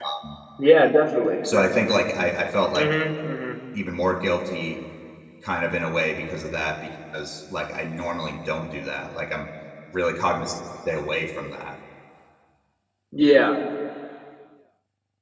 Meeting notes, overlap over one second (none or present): none